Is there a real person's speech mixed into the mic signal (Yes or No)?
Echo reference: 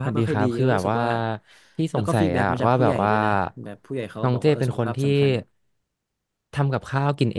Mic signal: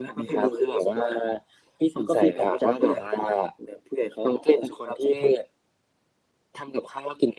No